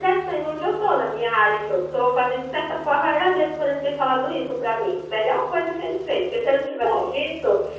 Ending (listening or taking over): listening